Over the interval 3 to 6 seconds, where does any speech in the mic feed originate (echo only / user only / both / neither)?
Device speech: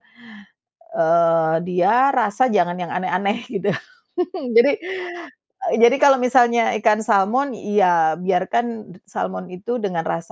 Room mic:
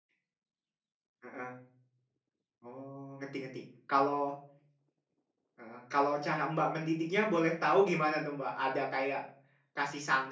user only